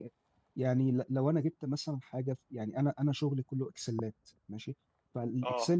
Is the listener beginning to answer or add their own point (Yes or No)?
No